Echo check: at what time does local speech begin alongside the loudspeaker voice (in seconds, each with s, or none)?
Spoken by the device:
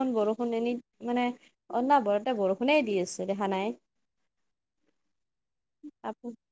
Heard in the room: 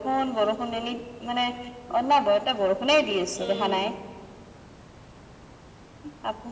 3.3 s